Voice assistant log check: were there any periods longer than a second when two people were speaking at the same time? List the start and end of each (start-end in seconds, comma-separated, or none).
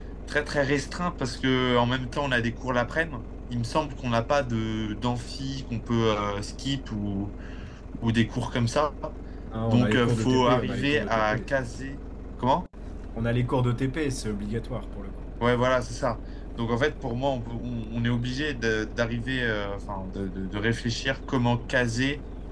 9.7-11.4